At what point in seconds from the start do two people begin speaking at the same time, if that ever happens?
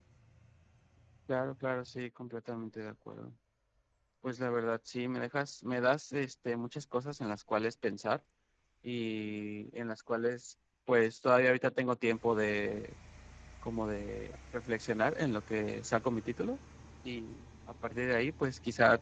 none

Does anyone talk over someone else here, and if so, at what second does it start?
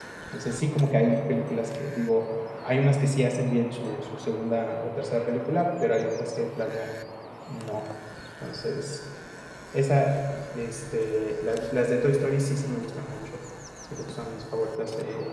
none

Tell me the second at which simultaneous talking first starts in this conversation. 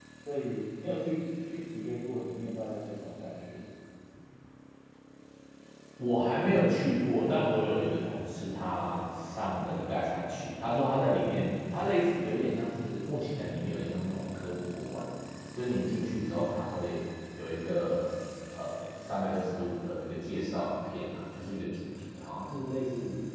none

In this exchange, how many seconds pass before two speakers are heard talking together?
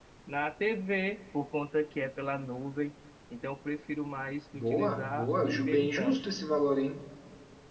4.5 s

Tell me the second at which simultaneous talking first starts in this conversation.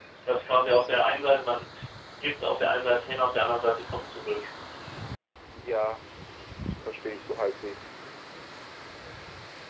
none

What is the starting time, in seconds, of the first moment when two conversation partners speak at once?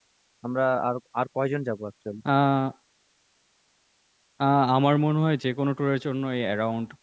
none

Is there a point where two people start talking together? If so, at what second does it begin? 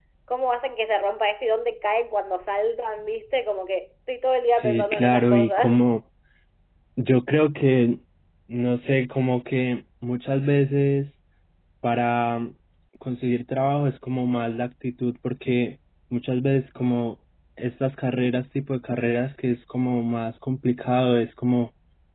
4.5 s

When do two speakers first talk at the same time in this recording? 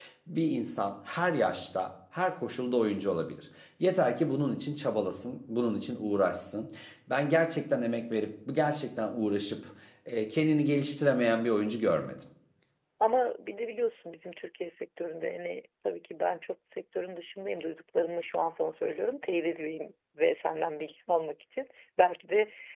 none

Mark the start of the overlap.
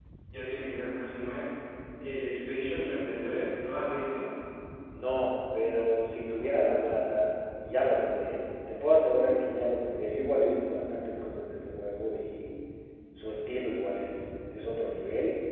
none

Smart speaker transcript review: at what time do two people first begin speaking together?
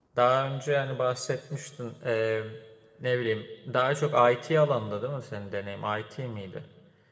none

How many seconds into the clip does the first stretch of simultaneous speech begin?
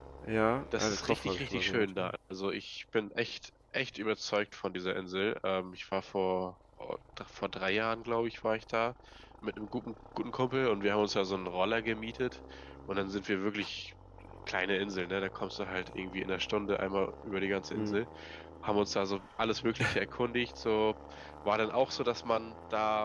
0.8 s

